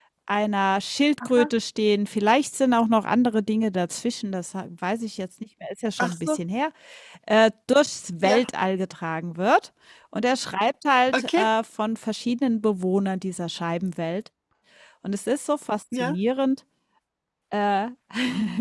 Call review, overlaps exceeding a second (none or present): none